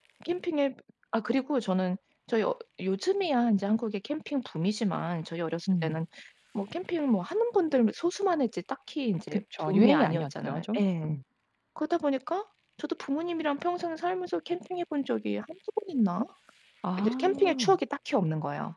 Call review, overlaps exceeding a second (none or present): present